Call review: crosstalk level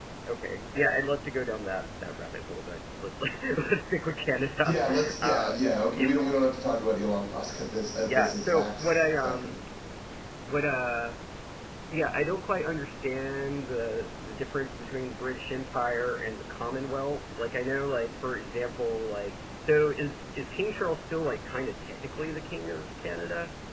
present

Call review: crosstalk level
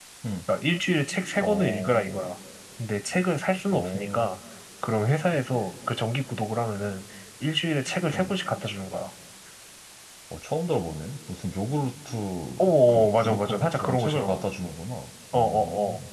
present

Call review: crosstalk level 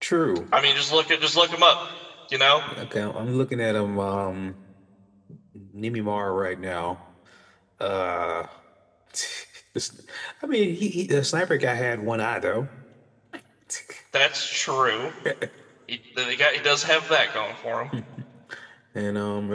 none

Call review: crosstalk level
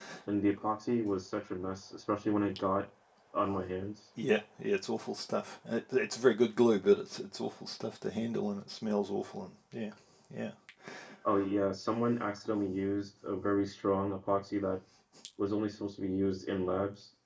none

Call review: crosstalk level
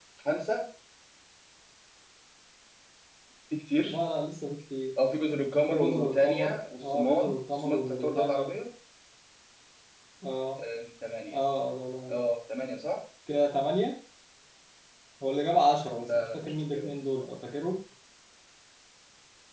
present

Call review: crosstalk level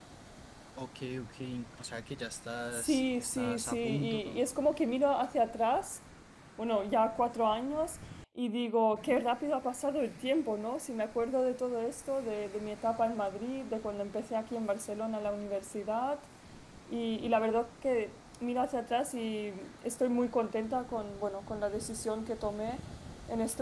present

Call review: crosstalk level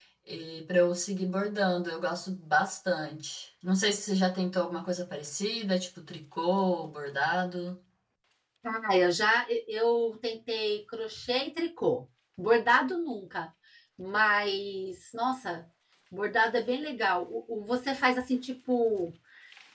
none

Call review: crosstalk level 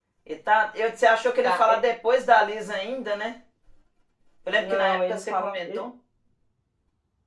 present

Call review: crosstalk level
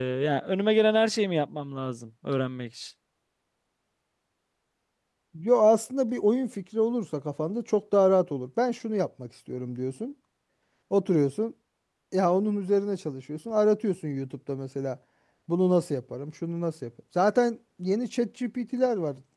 none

